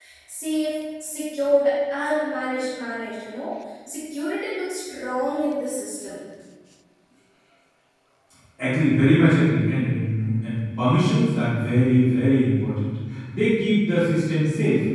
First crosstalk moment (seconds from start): none

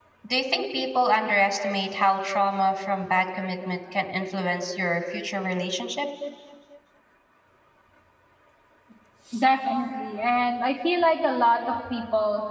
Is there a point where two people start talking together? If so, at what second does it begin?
none

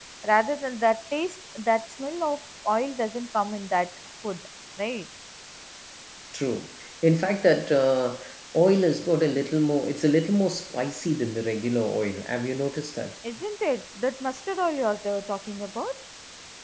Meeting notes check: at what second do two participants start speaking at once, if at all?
none

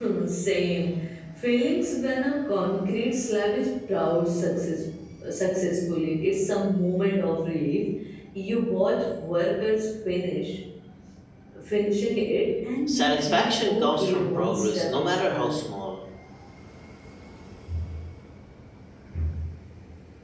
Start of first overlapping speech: 12.9 s

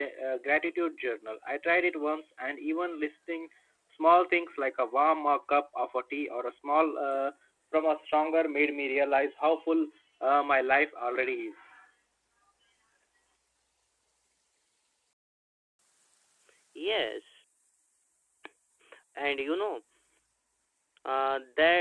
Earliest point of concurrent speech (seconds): none

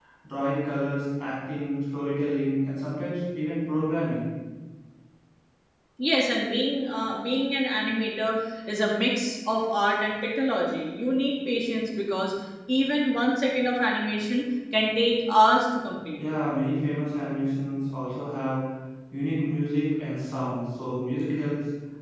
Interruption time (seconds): none

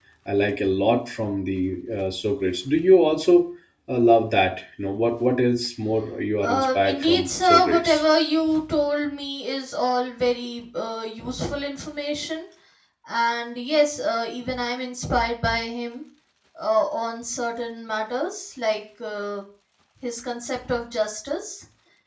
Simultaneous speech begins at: 6.4 s

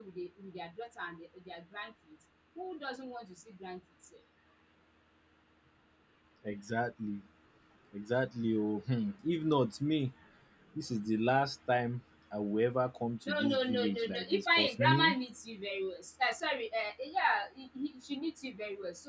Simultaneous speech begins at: 13.3 s

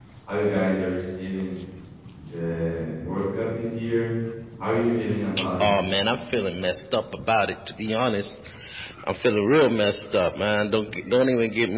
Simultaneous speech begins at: none

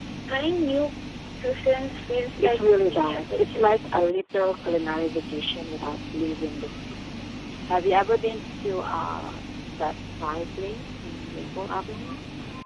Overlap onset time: 2.4 s

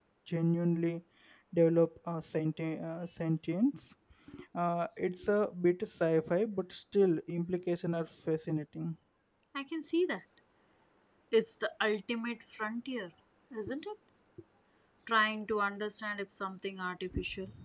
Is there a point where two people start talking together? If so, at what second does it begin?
none

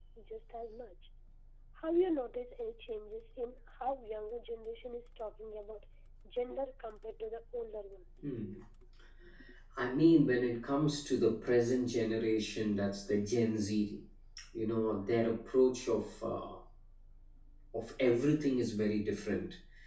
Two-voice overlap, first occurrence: none

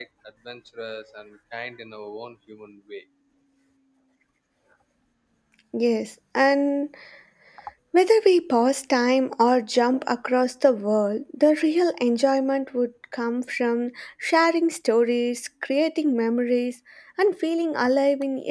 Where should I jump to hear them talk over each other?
none

